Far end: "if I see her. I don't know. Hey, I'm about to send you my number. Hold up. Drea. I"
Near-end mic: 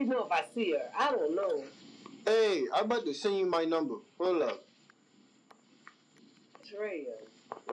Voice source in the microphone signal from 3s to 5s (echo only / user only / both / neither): echo only